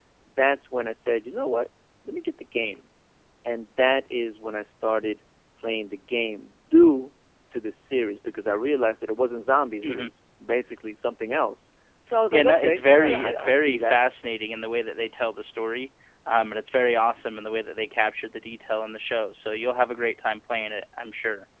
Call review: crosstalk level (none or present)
present